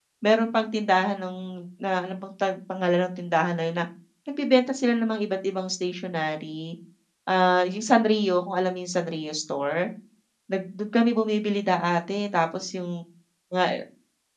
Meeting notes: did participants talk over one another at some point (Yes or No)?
No